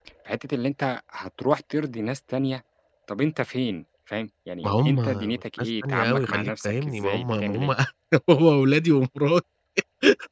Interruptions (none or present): present